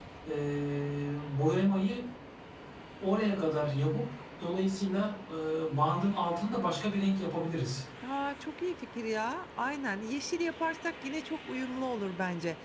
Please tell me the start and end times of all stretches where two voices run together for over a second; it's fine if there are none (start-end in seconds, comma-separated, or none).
none